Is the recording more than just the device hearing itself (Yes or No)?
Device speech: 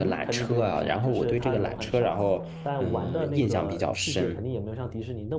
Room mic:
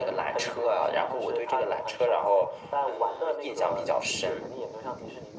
No